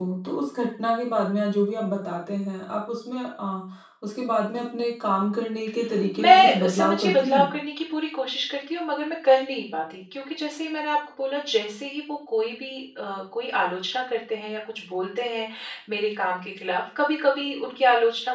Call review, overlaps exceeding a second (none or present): present